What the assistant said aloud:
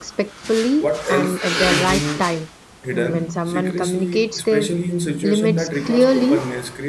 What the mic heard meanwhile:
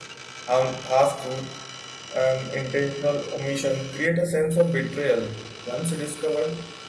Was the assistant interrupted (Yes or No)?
Yes